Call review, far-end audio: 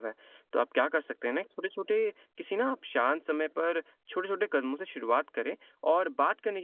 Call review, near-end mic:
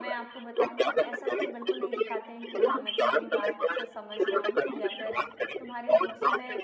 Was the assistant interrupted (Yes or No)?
Yes